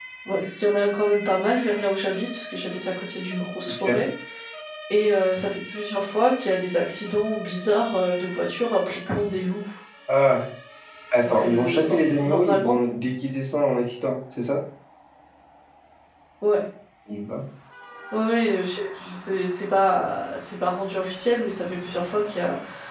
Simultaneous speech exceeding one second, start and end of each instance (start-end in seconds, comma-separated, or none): 11.2-12.7